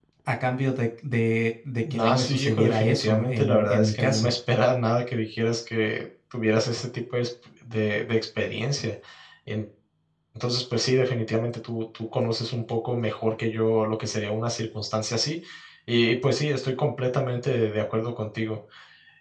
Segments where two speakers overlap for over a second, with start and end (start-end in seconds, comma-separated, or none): 1.9-4.3